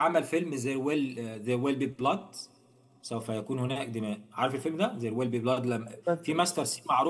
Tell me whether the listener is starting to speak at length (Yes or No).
No